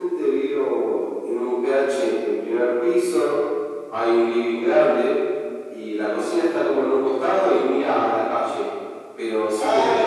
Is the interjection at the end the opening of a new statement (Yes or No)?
Yes